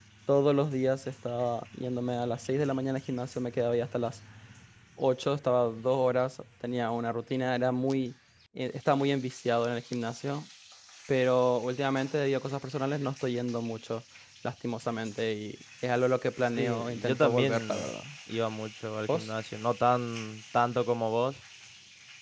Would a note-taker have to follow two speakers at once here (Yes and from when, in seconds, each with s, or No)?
Yes, from 16.6 s